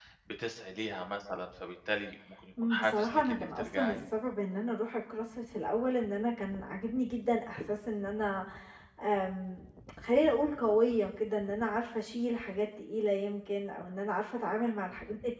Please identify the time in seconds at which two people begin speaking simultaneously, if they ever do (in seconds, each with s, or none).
2.6 s